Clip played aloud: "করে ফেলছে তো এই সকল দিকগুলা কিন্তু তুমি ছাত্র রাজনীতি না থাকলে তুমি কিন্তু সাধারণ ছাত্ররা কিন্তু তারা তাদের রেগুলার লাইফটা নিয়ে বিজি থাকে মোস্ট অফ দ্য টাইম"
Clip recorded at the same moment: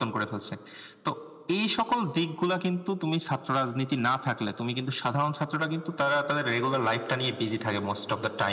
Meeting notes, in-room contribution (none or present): none